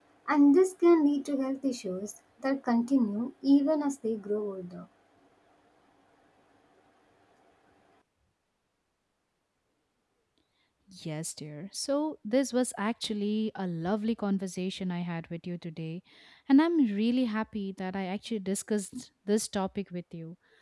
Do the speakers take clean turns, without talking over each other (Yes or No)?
Yes